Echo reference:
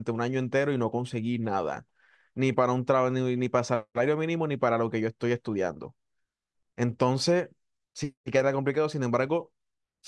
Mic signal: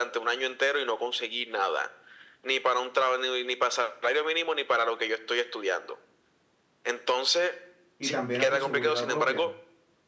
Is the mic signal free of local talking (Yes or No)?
No